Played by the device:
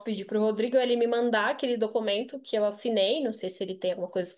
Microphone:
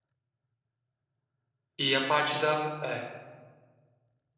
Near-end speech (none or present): present